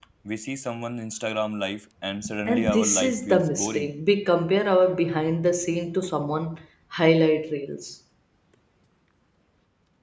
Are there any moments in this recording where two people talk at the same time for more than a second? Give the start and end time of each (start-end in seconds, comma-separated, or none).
2.5-3.9